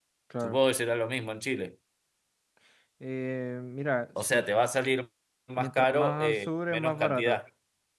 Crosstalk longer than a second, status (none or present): present